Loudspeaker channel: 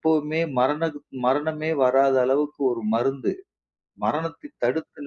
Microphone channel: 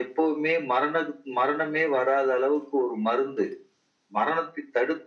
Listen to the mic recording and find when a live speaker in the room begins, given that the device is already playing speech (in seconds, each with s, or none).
none